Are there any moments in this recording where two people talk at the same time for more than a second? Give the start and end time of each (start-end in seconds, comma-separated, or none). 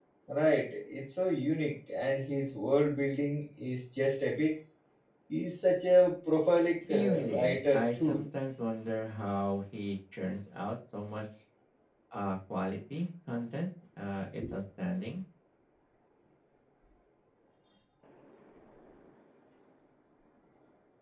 6.9-8.2